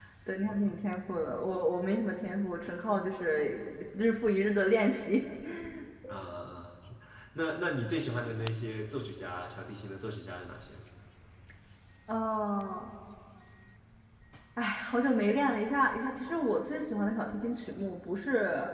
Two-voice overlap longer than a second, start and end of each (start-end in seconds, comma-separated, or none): none